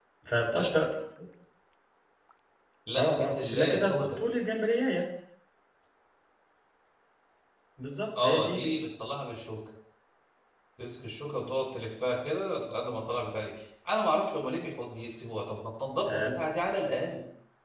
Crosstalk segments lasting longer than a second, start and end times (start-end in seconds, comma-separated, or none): 3.0-4.2